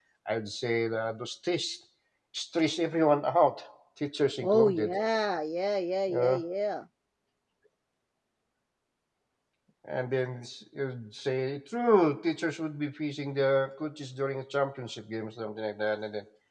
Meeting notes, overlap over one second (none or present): none